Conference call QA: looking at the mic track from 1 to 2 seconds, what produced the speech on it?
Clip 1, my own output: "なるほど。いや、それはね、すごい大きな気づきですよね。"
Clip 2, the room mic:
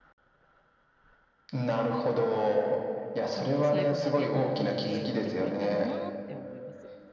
echo only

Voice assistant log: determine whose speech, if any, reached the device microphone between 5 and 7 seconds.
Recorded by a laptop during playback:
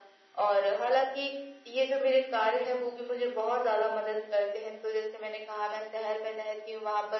echo only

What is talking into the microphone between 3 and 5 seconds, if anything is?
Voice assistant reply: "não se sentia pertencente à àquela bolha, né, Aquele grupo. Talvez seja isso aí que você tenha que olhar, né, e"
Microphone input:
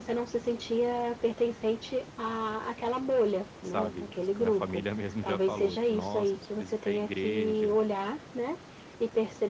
both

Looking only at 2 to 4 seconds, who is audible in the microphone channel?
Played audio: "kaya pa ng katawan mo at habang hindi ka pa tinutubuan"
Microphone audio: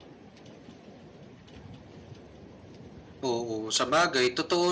user only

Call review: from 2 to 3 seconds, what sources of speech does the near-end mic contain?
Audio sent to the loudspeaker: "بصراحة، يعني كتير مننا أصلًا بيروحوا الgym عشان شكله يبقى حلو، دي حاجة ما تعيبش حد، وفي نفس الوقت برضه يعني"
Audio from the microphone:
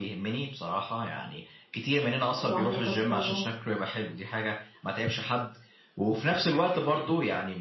both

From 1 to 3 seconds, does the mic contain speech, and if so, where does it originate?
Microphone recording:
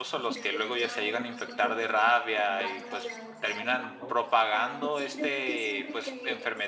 both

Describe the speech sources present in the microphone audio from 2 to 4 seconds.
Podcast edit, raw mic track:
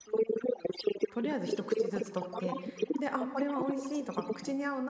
both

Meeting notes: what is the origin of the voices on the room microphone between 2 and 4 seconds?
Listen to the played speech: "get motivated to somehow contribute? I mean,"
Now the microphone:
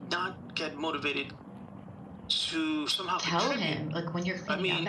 both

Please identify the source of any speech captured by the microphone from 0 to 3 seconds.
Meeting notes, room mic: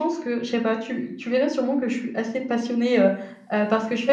echo only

